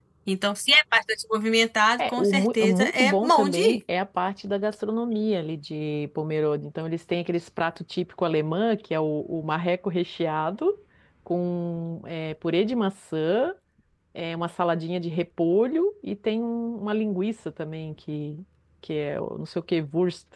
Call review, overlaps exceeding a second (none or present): present